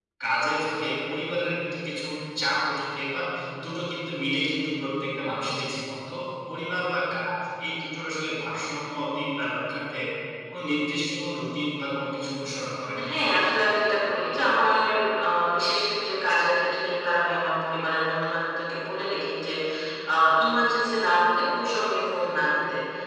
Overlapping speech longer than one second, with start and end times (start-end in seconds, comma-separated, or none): none